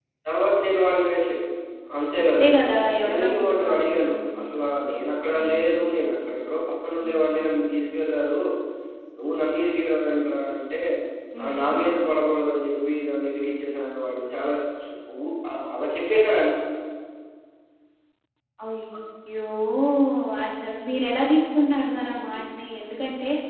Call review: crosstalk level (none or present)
present